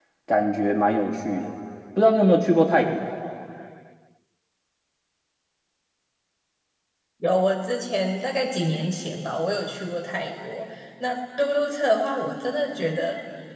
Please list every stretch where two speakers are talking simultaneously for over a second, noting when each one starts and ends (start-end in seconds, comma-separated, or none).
none